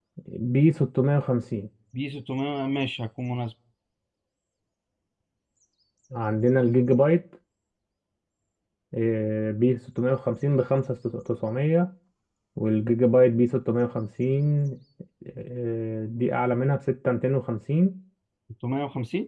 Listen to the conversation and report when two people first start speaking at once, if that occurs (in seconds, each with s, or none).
none